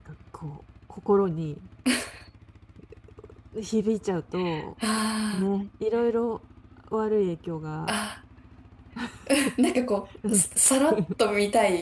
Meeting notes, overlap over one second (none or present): none